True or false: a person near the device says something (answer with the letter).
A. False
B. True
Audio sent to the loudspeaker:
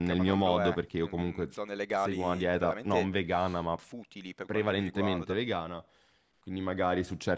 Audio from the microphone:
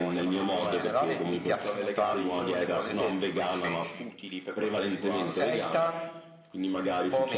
B